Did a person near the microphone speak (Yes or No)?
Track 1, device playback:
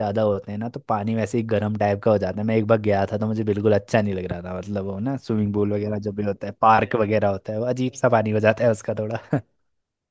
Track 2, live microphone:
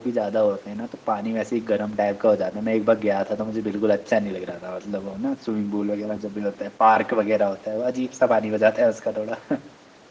No